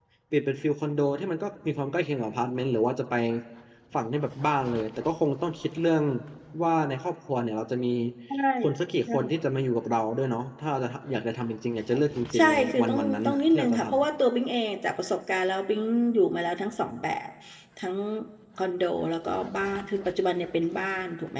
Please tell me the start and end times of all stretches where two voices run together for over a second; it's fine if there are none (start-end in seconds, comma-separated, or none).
12.4-13.9